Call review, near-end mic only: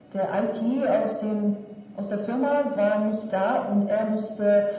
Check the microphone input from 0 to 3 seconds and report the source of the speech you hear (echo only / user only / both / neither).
echo only